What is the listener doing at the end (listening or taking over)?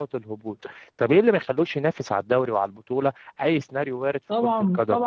taking over